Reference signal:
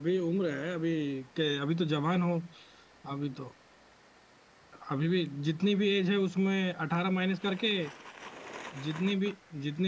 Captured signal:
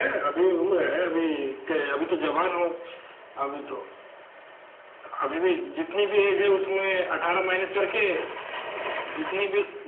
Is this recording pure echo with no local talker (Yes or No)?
Yes